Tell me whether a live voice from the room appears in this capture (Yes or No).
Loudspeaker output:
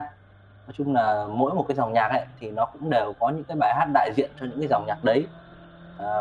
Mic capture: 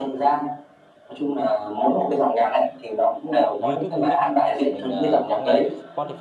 Yes